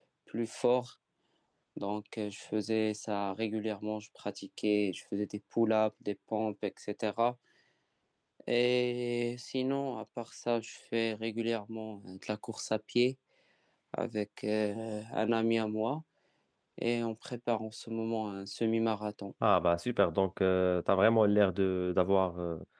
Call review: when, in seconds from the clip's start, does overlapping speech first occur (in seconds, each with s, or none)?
none